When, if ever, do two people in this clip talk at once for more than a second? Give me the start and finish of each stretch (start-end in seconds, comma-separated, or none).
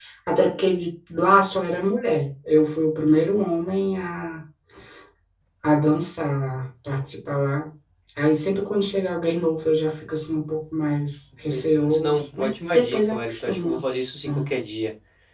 11.5-13.8